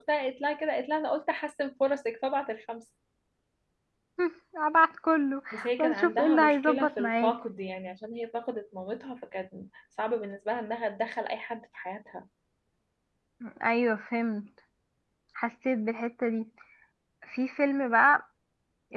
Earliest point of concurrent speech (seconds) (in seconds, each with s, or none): 5.8 s